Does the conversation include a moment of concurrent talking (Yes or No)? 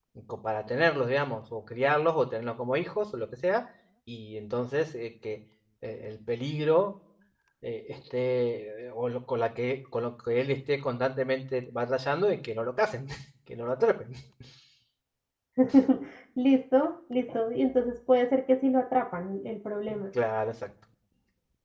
No